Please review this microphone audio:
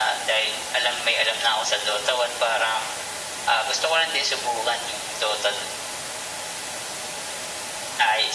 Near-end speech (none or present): none